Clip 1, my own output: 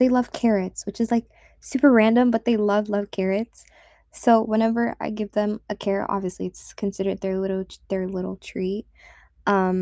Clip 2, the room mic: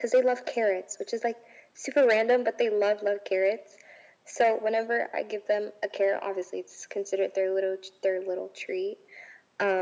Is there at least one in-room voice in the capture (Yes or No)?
No